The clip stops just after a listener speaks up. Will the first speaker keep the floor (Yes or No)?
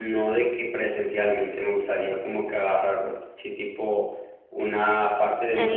Yes